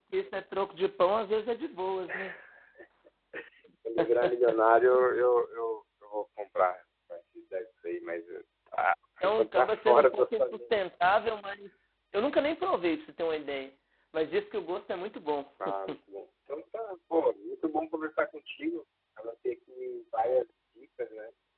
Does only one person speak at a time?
No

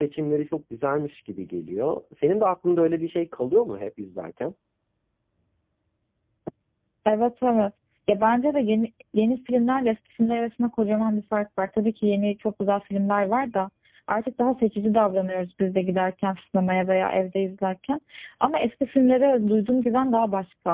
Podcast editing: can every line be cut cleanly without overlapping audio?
Yes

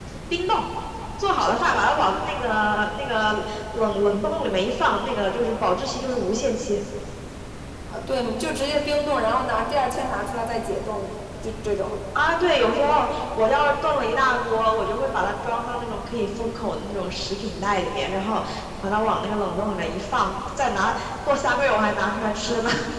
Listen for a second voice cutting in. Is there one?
No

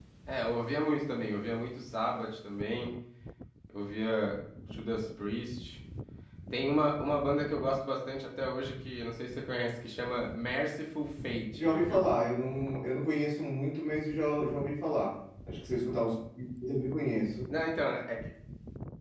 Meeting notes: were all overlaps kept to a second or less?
Yes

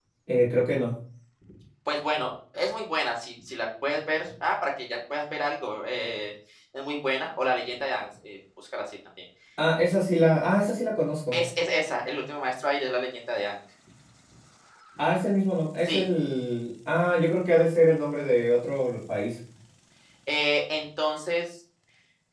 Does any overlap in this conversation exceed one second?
No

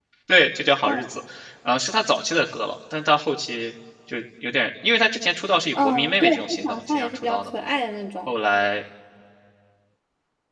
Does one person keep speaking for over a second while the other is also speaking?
Yes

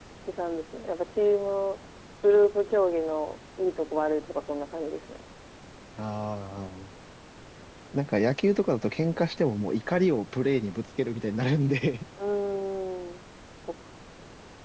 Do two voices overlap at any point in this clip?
No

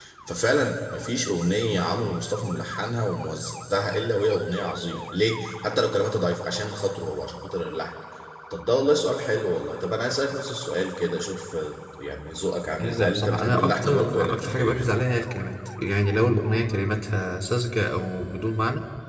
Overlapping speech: Yes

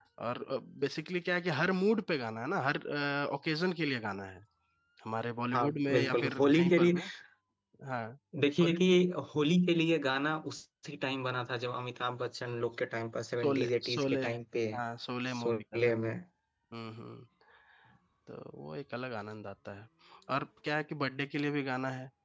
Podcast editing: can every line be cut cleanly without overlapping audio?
No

